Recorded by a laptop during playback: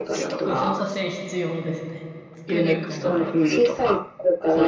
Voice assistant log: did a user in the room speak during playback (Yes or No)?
Yes